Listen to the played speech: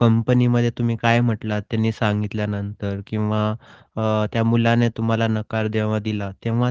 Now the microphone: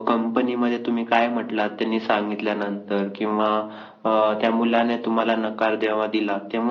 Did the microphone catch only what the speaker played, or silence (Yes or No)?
Yes